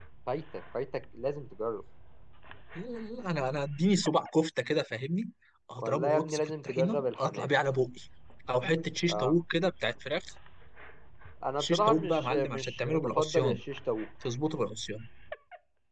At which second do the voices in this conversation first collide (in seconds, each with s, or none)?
5.8 s